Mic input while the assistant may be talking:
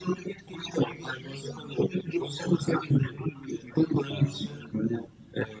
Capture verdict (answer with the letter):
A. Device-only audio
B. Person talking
B